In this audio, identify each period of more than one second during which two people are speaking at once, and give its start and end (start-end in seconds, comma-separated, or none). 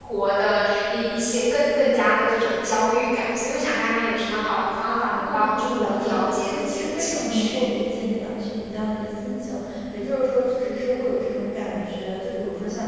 5.2-7.6